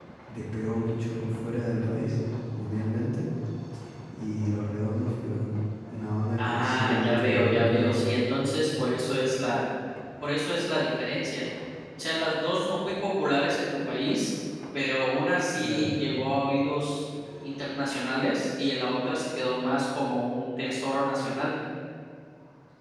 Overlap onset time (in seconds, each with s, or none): 6.4 s